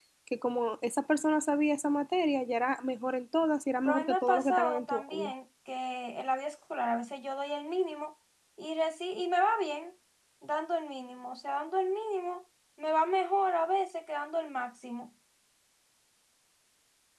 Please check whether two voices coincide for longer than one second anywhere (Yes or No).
Yes